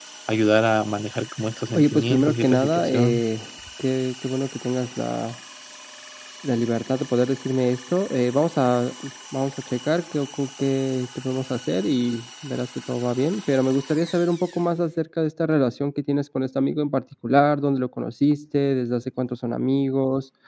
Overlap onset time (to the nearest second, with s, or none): 2 s